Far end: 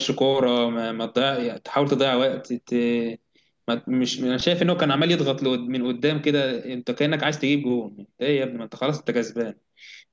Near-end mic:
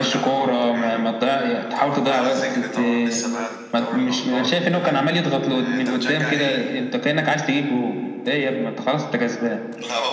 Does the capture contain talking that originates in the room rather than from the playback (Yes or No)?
Yes